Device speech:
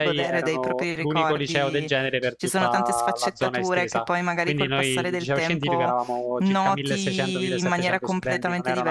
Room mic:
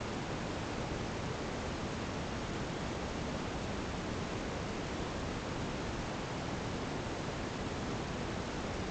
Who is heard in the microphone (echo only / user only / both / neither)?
neither